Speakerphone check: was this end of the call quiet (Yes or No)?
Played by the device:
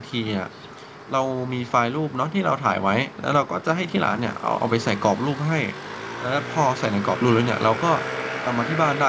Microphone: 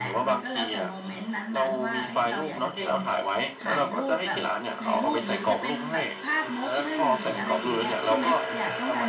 No